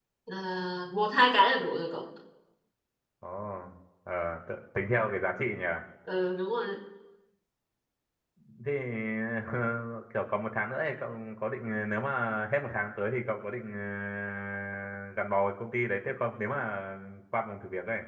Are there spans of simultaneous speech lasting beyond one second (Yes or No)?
No